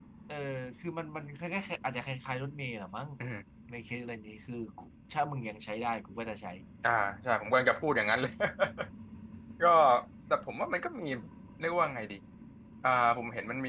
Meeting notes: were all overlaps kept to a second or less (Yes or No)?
Yes